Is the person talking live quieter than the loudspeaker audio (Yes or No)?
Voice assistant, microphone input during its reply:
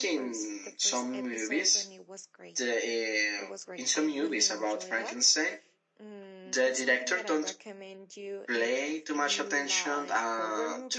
Yes